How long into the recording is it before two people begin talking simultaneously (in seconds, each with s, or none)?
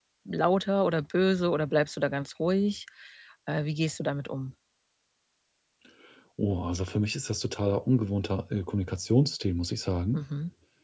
none